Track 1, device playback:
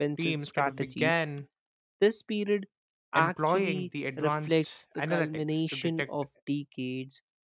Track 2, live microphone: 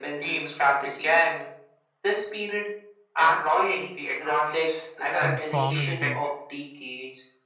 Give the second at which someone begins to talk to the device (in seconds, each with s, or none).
5.2 s